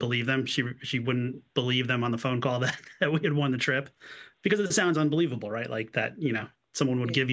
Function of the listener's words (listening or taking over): listening